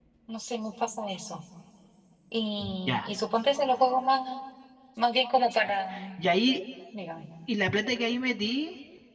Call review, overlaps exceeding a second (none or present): none